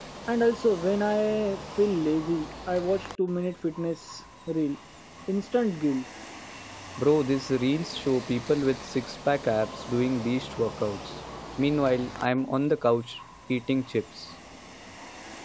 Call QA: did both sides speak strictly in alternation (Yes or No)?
Yes